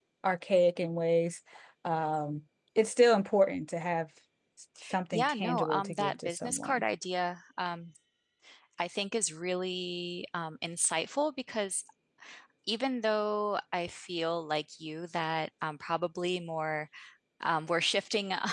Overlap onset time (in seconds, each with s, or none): 5.1 s